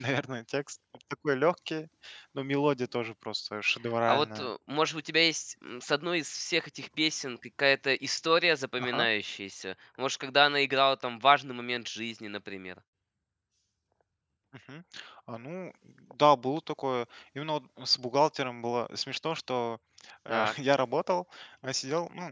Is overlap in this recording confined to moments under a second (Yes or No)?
Yes